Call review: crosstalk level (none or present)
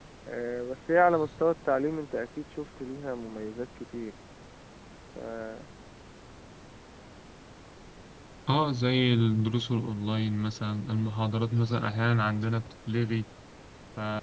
none